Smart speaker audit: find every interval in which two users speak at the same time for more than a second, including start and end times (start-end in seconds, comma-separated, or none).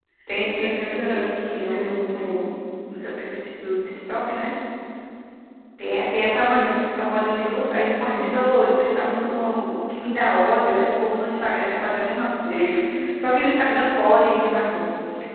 0.6-2.4